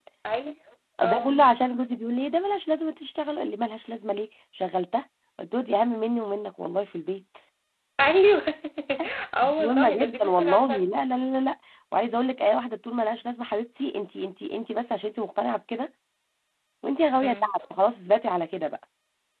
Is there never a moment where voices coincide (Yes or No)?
No